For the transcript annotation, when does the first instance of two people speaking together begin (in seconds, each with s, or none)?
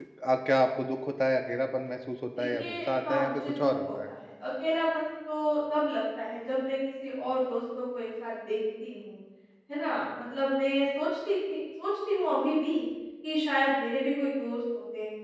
2.4 s